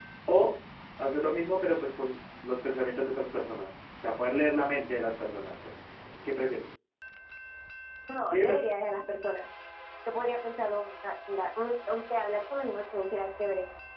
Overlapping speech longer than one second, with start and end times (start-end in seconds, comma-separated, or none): none